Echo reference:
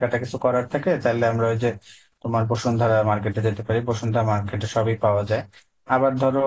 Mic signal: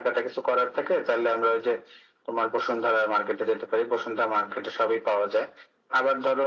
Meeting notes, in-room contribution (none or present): none